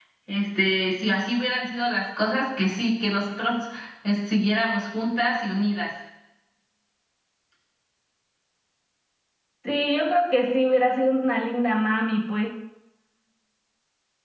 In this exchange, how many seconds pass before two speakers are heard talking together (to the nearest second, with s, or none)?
none